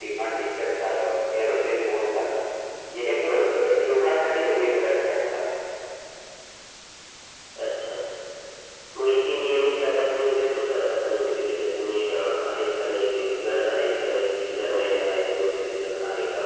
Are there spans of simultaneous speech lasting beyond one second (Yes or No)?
No